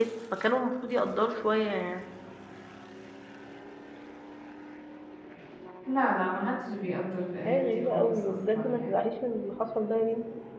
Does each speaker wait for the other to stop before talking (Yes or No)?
No